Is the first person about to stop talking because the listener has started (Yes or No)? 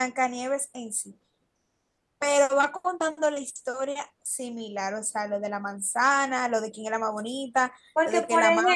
Yes